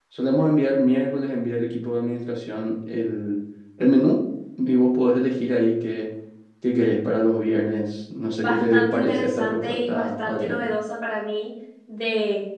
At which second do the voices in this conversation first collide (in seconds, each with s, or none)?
8.4 s